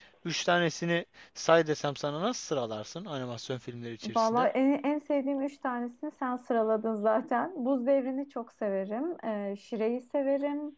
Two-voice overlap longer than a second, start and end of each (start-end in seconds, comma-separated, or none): none